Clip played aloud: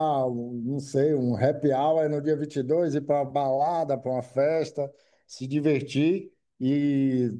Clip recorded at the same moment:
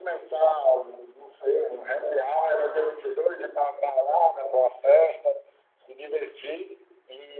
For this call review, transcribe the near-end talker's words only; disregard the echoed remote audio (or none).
Aham.